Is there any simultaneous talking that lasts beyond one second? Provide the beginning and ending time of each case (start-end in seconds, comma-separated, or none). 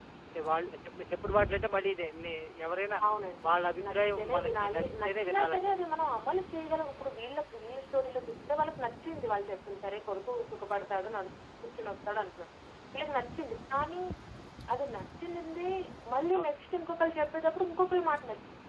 3.9-5.8